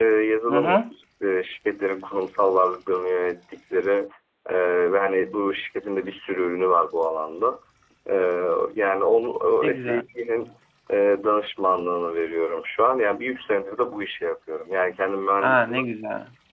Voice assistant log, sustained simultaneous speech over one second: none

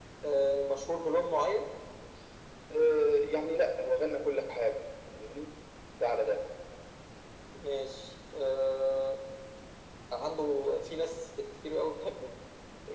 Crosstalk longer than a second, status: none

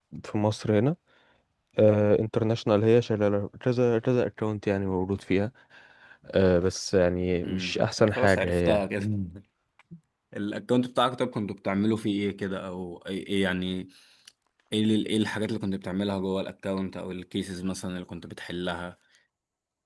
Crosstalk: present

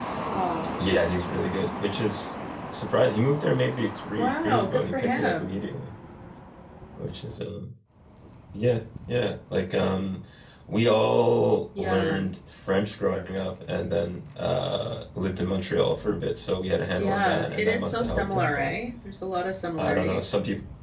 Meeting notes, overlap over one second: present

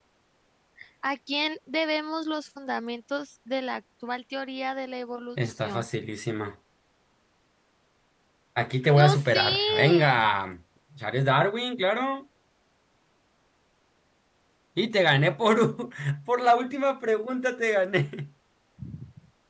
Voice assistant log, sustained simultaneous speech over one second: present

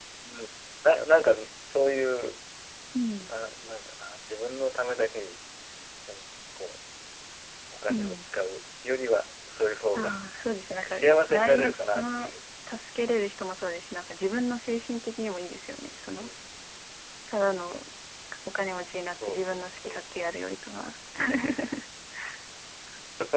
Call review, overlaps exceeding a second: present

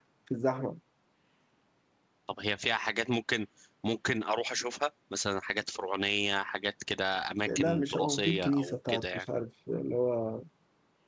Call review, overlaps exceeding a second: present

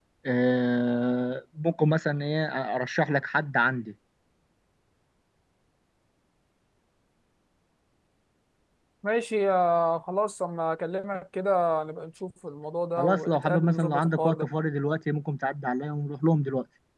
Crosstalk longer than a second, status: present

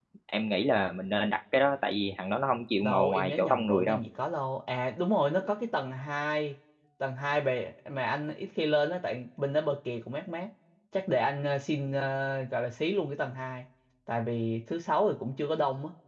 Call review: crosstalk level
present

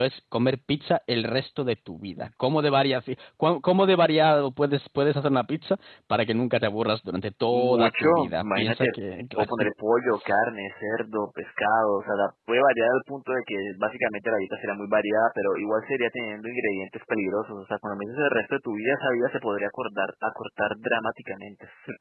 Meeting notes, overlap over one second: present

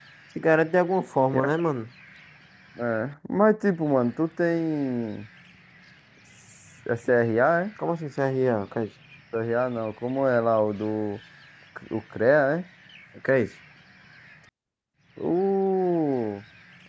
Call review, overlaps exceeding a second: none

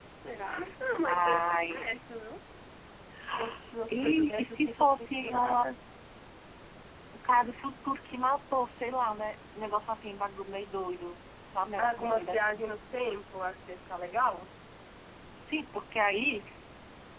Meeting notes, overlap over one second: present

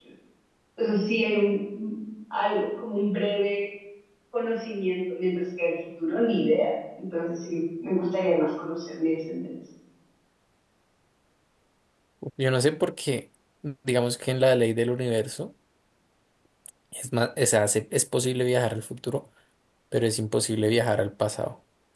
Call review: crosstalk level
none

